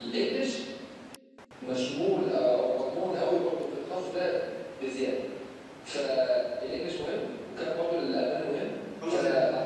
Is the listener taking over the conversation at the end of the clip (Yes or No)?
Yes